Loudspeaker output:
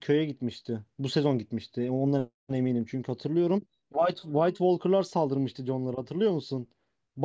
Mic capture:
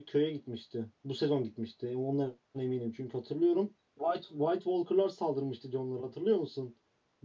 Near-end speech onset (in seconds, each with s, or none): none